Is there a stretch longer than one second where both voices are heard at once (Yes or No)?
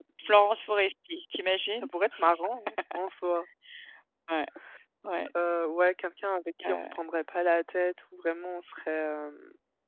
No